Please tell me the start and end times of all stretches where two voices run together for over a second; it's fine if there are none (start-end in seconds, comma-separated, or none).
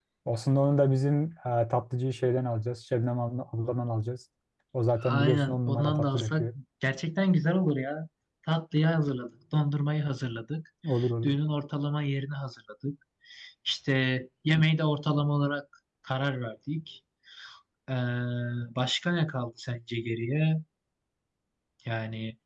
5.1-6.5